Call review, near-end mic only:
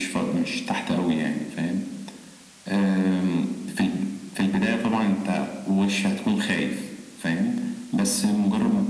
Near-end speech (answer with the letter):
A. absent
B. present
A